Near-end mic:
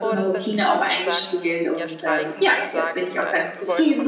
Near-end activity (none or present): present